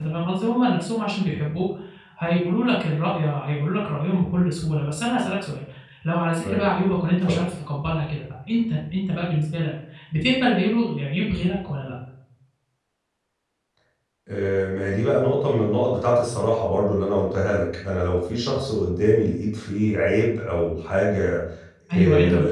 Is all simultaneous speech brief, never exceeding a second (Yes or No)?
Yes